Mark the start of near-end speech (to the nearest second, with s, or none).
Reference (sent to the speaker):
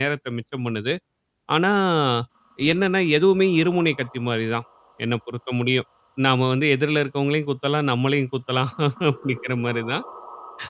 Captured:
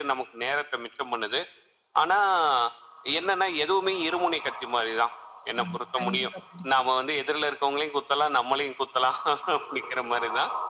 6 s